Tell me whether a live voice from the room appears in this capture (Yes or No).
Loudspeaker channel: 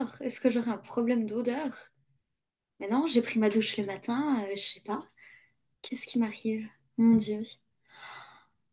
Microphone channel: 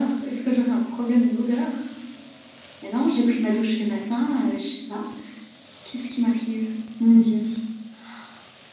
No